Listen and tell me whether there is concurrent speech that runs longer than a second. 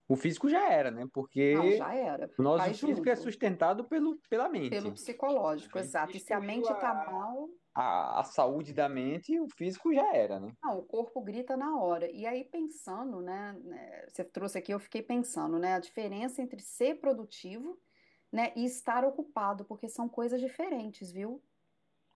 Yes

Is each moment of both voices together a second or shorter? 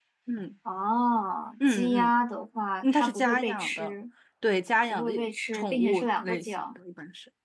No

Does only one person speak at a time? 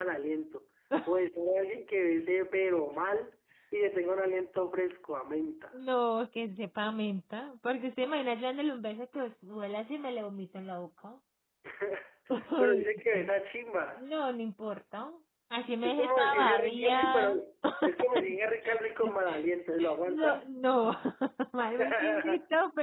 No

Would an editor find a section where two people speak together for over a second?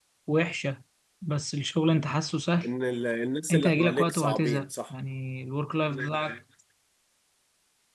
Yes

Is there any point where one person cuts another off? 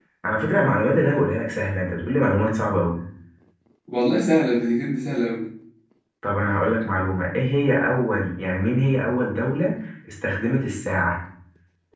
No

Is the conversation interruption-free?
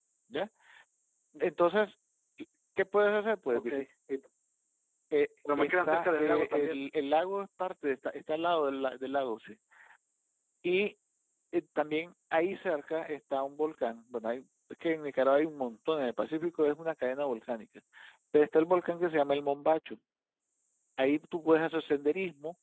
No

